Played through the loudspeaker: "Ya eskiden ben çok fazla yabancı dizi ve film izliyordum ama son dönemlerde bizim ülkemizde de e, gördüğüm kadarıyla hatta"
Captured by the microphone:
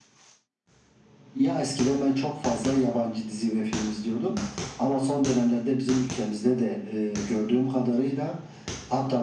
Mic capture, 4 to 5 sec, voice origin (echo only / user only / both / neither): echo only